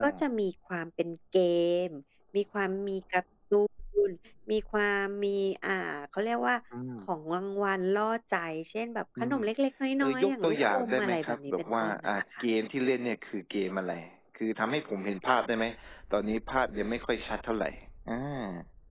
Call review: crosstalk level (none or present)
present